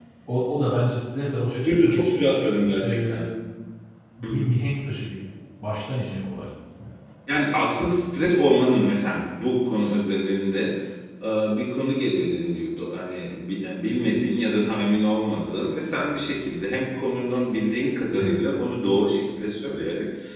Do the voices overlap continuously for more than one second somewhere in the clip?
No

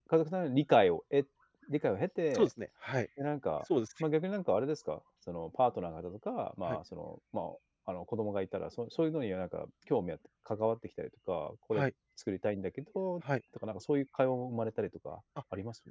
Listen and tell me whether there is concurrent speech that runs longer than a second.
No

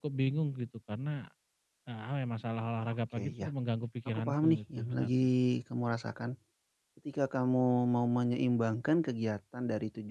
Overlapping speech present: Yes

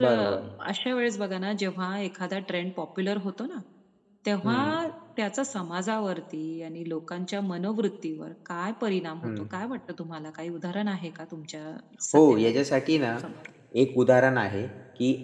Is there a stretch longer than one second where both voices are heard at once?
No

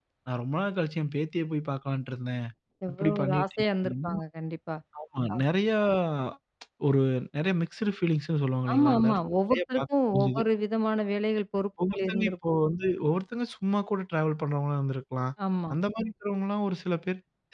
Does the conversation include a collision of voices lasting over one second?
Yes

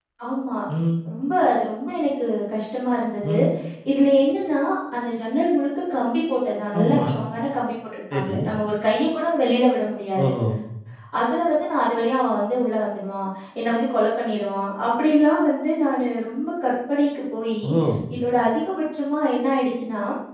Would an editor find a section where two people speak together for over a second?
No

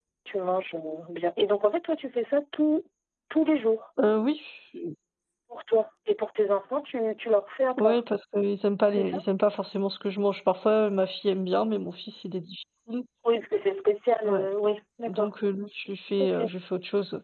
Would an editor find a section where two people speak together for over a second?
No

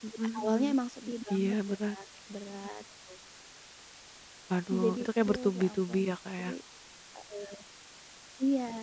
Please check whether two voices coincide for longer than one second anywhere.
Yes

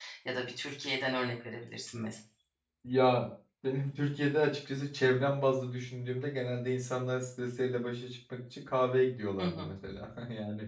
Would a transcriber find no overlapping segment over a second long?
Yes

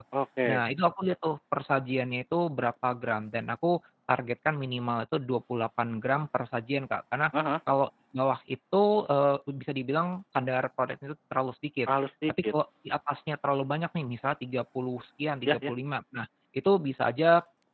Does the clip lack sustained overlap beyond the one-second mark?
Yes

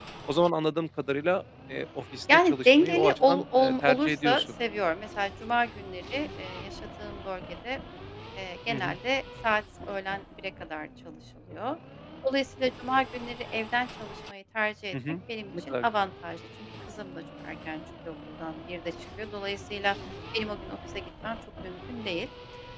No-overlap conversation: No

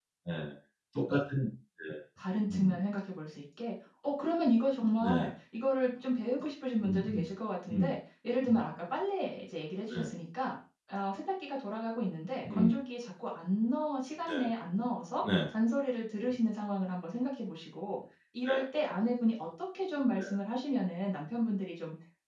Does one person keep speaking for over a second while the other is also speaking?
No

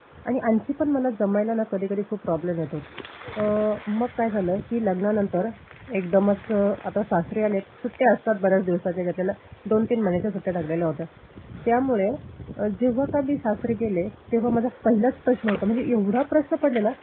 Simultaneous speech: No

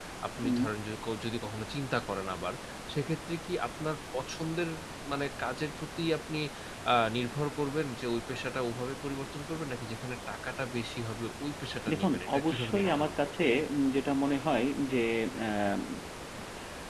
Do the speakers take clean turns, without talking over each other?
No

